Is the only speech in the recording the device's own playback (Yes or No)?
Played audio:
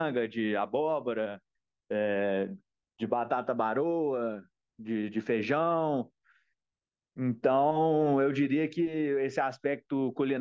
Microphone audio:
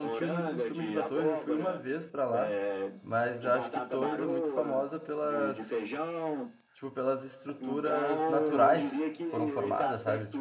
No